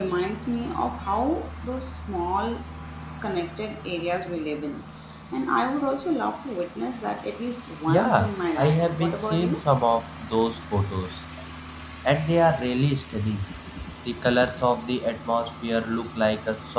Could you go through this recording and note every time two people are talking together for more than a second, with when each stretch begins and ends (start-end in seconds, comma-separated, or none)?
7.9-9.6